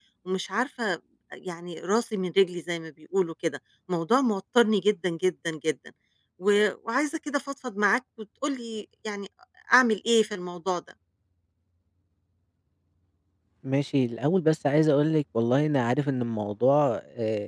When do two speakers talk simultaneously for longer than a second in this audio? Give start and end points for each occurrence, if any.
none

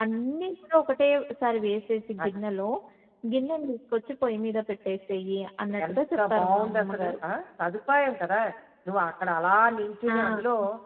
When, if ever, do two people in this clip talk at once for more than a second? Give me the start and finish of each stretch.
5.9-7.1

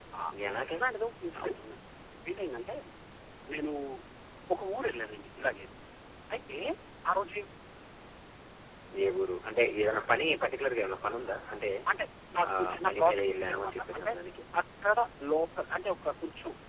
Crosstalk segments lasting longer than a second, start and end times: 12.6-14.1

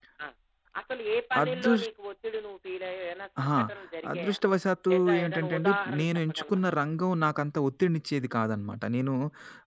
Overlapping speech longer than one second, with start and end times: 4.9-6.6

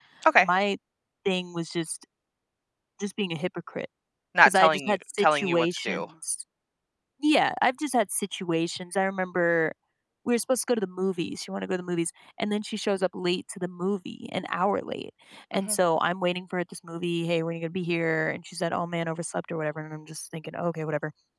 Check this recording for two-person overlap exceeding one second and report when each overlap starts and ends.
4.5-6.0

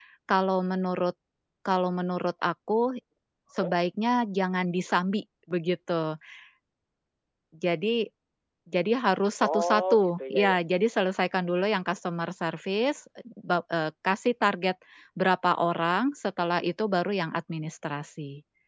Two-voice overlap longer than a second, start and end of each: 9.5-11.0

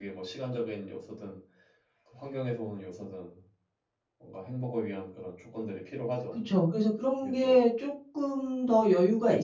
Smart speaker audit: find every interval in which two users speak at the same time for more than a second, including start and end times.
none

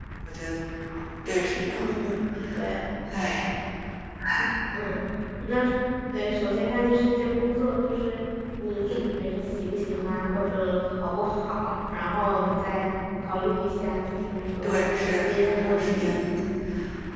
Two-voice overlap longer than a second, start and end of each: 14.6-16.1

